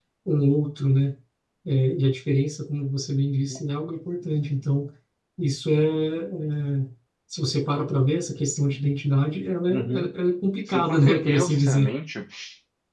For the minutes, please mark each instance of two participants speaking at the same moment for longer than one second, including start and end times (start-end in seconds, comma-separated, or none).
10.7-11.9